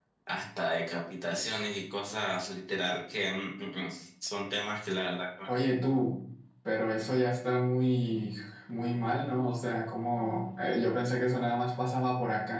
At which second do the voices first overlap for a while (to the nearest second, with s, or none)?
none